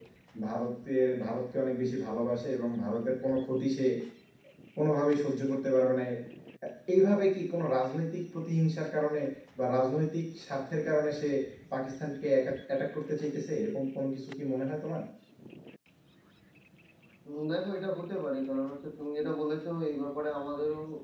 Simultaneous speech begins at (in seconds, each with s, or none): none